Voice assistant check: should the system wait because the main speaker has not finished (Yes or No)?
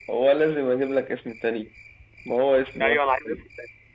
No